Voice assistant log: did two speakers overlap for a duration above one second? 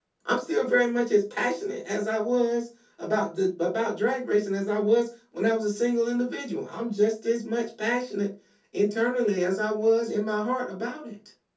No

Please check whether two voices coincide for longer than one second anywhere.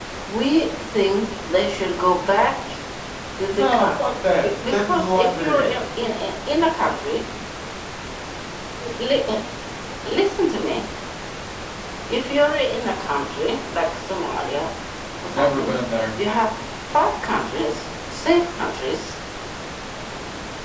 Yes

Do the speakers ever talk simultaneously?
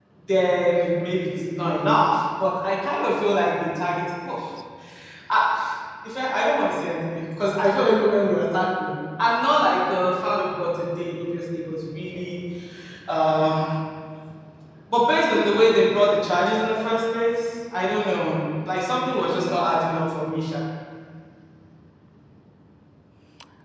No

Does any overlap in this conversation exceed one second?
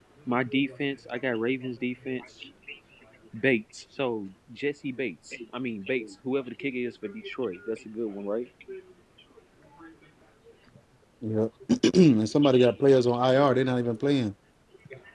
No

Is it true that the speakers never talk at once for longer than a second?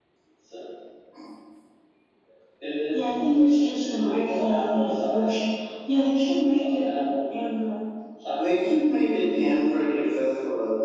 No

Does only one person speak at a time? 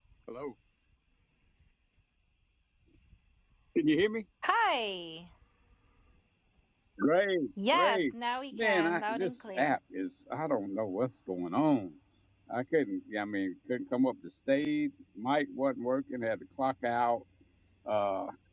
No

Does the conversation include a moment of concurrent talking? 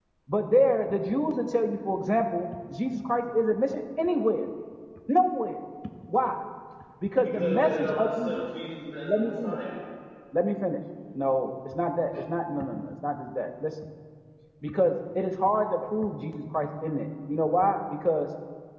Yes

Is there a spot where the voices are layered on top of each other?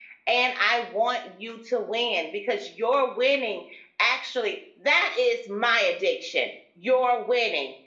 No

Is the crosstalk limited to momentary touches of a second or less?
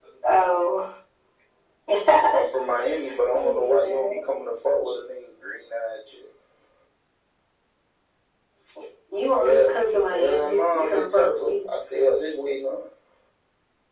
No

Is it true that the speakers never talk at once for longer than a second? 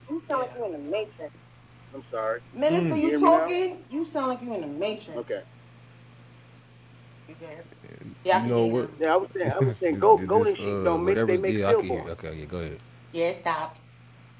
No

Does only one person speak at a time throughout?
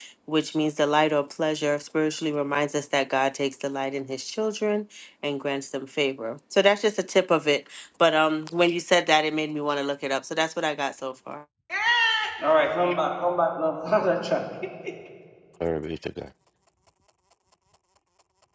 Yes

